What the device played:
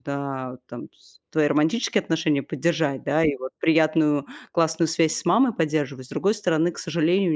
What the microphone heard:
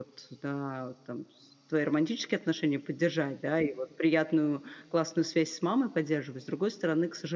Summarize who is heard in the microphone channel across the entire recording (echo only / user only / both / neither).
echo only